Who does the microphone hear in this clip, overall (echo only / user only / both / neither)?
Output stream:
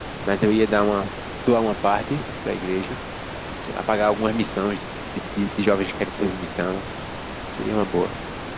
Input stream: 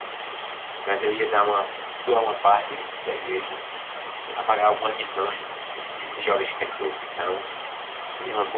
echo only